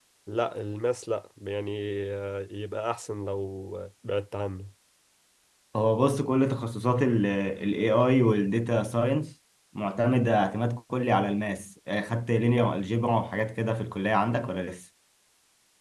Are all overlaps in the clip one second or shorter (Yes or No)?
Yes